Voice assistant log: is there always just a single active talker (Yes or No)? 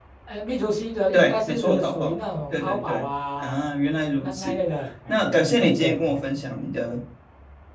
No